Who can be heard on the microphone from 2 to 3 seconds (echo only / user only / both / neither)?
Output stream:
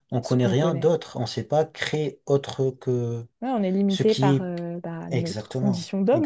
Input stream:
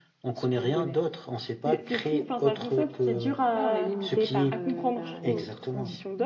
both